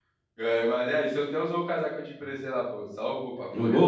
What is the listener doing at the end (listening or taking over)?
taking over